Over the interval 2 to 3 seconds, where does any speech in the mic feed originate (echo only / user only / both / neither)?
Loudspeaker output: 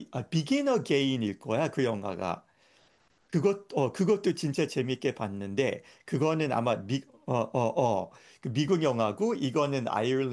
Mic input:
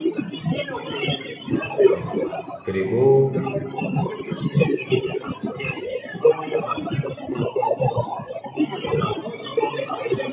both